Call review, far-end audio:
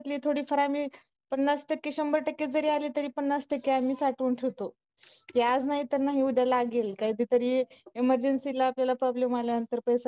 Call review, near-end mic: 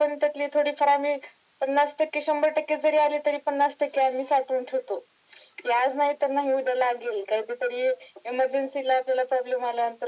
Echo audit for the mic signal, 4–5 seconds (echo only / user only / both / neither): echo only